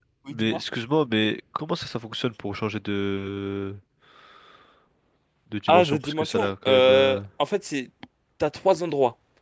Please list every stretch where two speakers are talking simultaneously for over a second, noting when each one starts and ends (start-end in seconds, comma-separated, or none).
5.7-7.2